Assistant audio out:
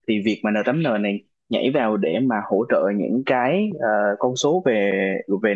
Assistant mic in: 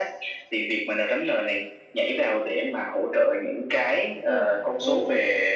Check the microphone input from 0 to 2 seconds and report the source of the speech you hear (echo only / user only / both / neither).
echo only